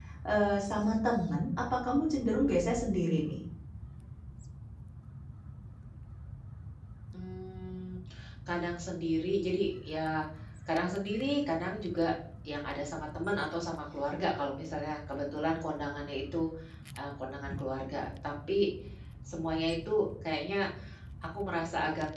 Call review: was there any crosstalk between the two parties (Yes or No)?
No